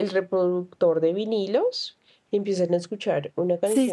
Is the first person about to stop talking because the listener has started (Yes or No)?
No